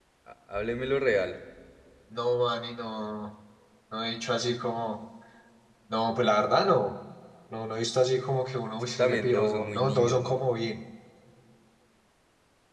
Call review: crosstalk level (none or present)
present